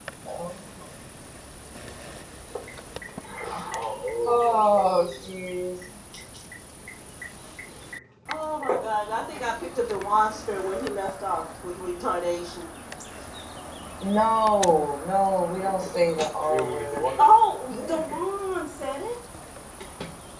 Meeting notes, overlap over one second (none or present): none